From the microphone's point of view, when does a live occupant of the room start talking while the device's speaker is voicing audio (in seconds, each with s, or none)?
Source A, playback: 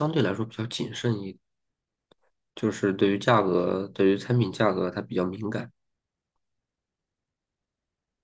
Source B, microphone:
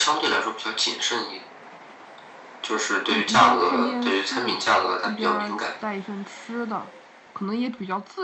3.0 s